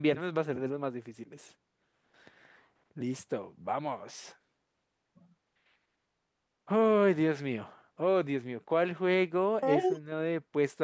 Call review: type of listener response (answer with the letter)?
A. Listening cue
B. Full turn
A